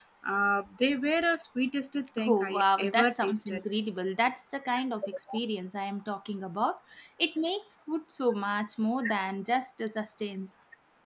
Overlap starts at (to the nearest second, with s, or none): 2 s